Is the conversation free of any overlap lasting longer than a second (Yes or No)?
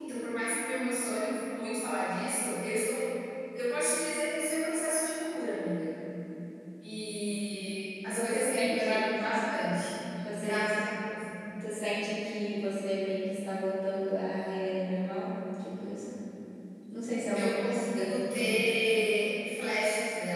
No